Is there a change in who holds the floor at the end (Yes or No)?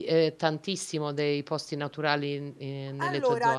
Yes